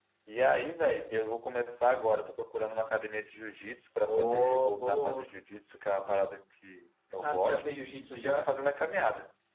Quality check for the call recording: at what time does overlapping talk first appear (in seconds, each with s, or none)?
4.0 s